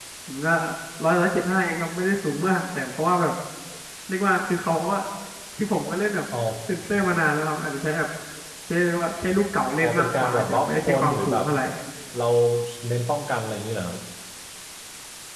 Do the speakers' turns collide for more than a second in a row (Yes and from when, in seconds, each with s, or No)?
Yes, from 9.8 s